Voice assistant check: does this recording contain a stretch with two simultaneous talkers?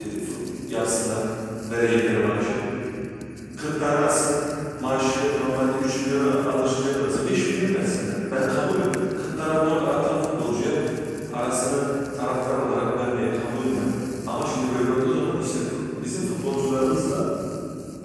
No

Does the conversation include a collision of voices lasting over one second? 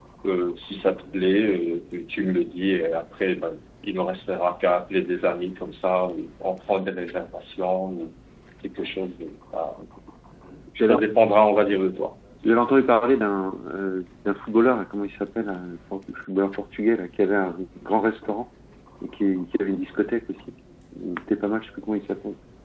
No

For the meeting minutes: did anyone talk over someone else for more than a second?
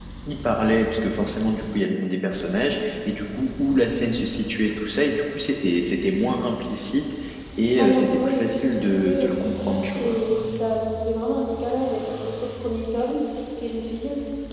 Yes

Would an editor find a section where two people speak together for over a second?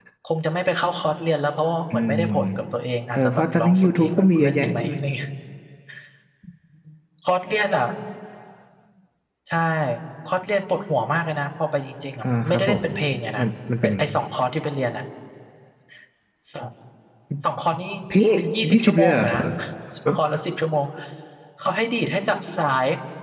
Yes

